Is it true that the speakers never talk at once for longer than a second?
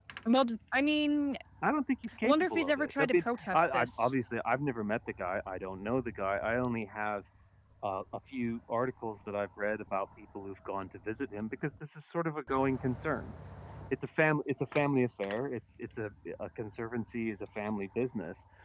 No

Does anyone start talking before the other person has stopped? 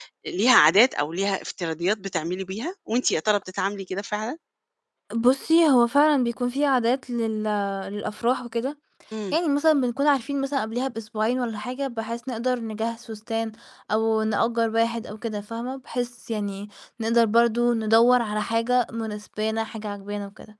No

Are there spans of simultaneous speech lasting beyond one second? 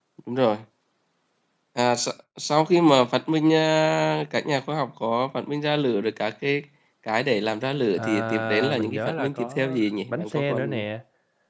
Yes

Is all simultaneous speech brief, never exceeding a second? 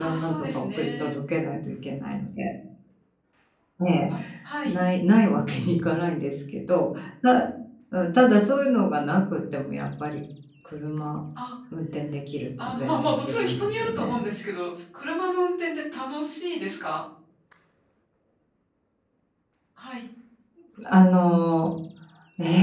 No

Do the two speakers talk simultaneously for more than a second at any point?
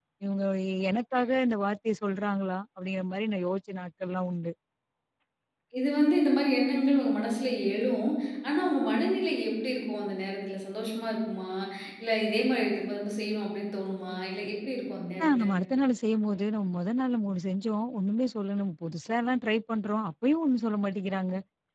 No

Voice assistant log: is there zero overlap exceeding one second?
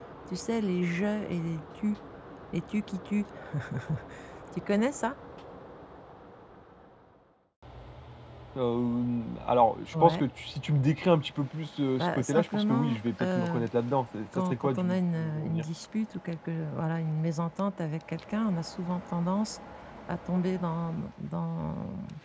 No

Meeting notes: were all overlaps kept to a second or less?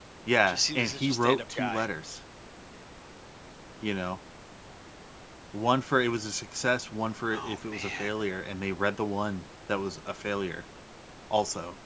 No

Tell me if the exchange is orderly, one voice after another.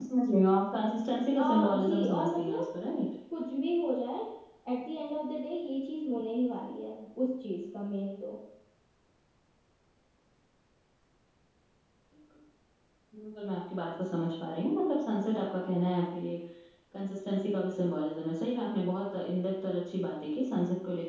No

